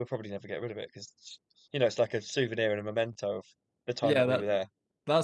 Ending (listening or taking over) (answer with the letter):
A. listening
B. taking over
B